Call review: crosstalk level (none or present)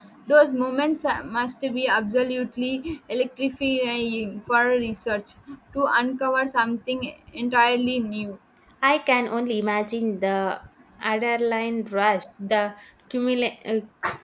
none